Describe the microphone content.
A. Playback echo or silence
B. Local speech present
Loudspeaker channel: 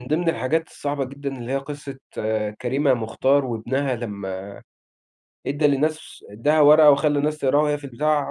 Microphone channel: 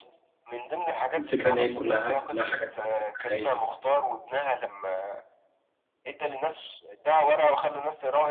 B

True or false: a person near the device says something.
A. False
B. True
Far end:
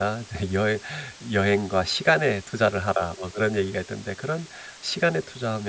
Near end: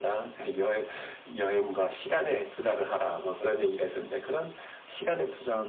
A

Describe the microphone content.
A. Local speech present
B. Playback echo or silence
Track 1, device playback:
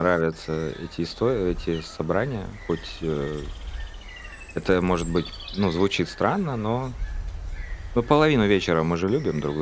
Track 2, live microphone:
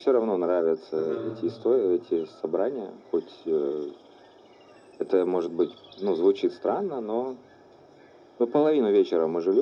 A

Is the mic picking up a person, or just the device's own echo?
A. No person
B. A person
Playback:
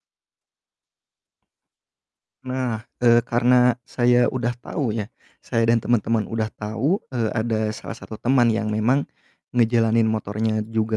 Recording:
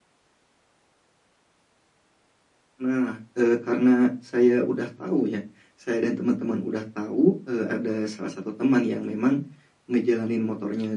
A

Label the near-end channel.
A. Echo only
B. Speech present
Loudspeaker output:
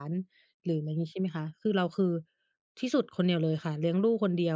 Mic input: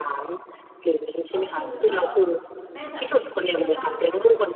B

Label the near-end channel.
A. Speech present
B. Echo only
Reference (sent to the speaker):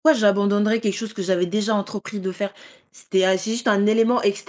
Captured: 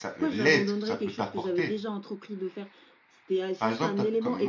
A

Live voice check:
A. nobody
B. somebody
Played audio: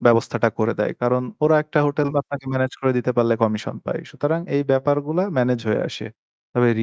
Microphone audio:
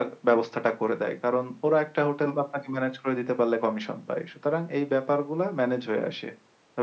A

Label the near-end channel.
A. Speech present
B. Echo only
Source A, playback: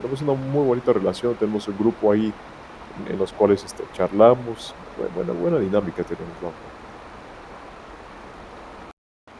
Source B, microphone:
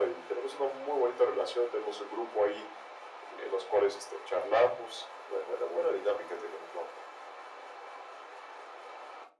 B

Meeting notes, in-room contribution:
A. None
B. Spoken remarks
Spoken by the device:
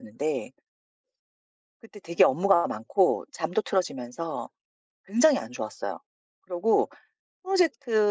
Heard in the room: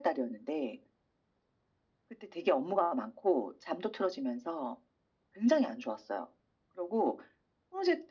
A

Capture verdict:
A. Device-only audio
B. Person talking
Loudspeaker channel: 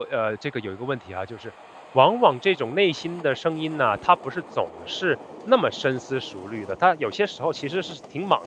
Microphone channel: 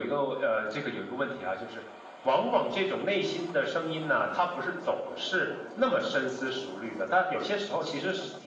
A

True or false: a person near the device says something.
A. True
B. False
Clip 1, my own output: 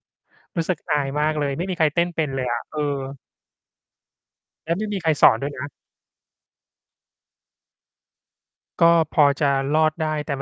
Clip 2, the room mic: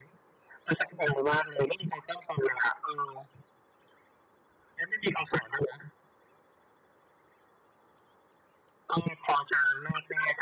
B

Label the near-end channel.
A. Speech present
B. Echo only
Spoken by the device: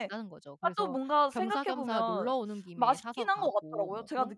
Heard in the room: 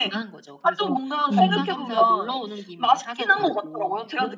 A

